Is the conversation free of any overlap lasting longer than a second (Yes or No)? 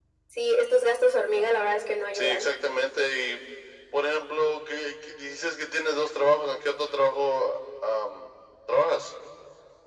Yes